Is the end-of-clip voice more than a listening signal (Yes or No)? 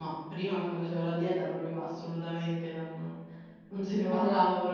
No